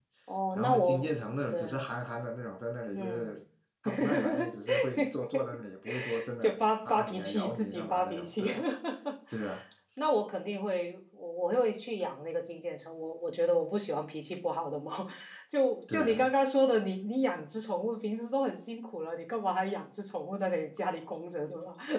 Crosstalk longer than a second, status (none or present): present